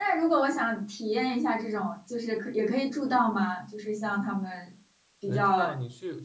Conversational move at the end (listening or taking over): taking over